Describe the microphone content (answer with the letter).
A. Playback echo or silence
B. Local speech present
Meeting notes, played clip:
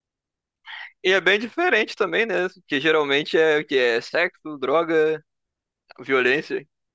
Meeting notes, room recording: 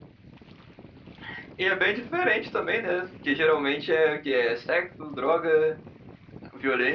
A